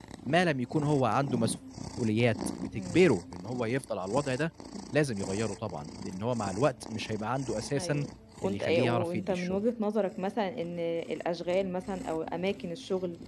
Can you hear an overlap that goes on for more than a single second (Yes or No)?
Yes